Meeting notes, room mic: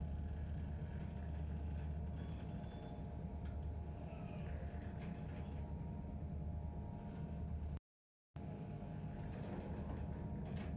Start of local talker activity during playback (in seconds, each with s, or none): none